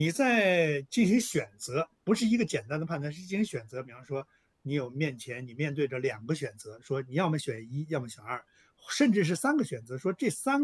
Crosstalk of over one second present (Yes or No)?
No